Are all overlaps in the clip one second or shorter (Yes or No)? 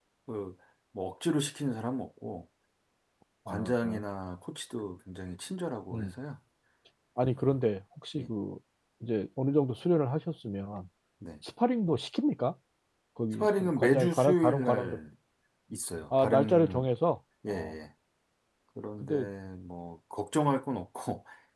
No